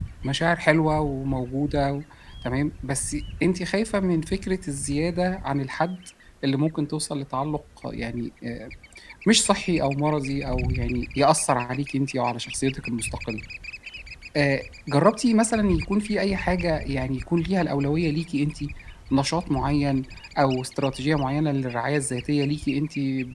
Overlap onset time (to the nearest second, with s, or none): none